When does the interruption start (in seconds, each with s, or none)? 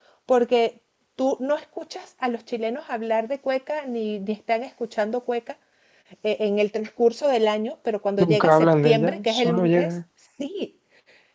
8.2 s